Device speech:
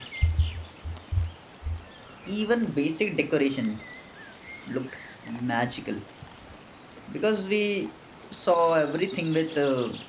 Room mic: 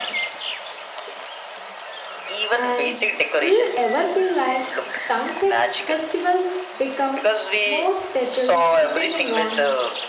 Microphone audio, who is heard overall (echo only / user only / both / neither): both